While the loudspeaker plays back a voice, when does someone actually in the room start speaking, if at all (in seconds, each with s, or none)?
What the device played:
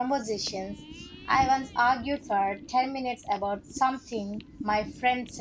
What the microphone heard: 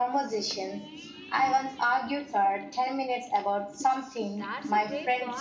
4.3 s